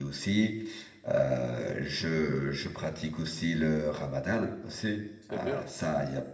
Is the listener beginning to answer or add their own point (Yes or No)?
No